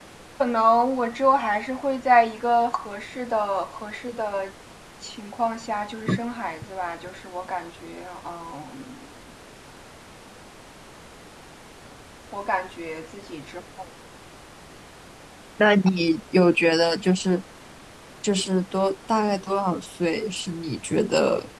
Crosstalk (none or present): none